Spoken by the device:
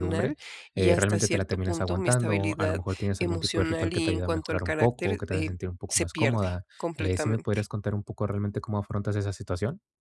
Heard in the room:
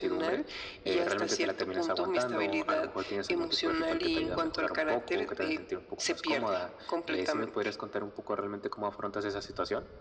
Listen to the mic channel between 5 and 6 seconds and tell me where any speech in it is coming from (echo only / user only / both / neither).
echo only